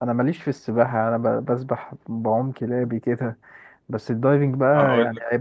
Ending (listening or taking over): listening